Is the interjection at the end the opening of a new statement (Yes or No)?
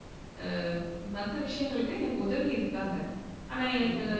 No